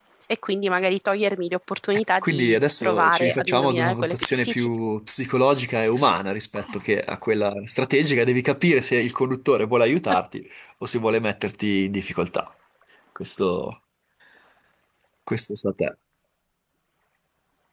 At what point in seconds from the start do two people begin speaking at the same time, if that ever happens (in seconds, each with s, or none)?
2.2 s